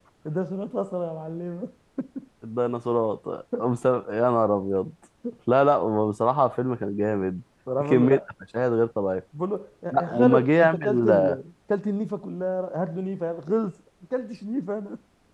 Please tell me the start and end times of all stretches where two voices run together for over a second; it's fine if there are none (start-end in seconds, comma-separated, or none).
9.9-11.3